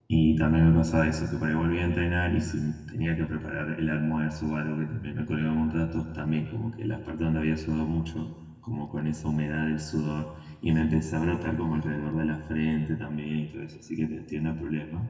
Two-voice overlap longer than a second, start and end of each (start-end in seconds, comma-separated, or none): none